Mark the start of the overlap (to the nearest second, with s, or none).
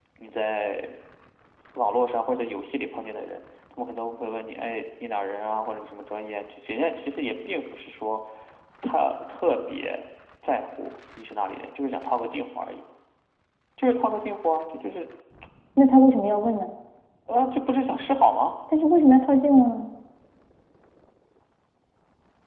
none